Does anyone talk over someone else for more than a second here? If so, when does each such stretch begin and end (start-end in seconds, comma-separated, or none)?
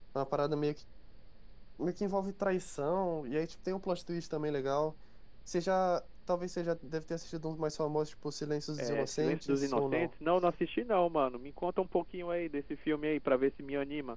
8.8-10.1